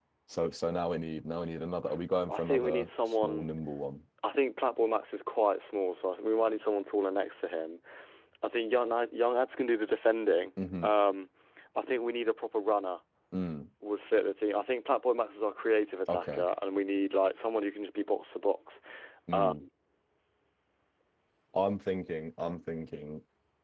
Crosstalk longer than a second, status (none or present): present